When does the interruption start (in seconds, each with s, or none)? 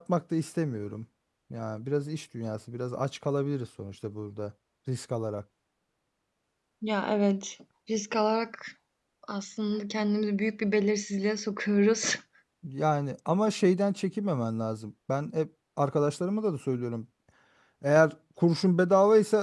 none